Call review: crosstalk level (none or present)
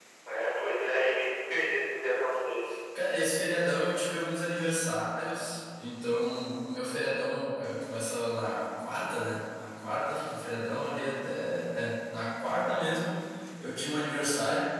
none